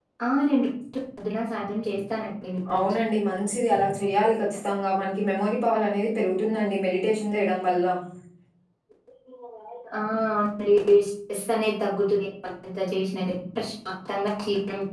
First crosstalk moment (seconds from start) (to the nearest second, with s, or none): none